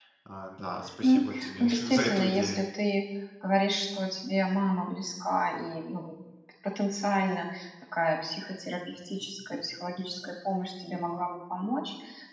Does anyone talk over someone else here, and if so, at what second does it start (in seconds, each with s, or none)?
1.0 s